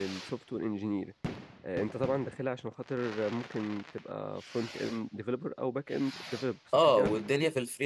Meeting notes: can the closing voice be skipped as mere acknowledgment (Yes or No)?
No